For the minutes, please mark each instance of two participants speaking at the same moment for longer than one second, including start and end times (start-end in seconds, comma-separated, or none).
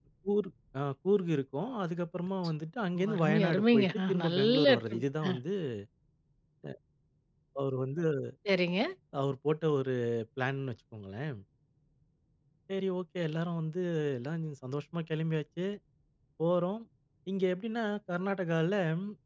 3.0-5.0